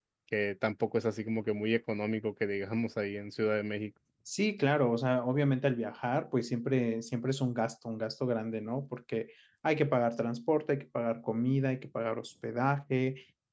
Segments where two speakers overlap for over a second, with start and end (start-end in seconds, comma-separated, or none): none